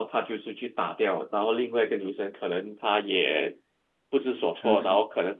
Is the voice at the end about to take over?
No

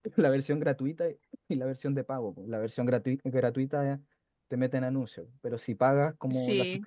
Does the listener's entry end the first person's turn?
No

